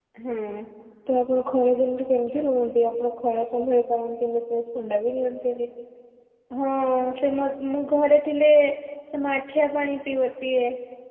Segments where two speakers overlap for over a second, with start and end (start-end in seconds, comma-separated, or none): none